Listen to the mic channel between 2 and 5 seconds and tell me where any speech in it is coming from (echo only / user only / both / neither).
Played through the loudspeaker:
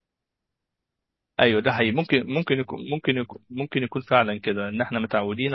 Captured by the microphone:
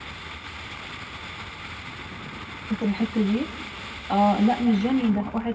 user only